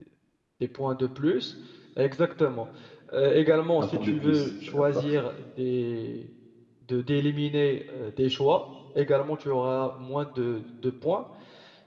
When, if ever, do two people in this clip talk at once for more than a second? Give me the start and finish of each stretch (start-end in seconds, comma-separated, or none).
3.8-5.1